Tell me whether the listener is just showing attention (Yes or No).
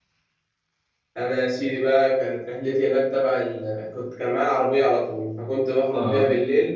Yes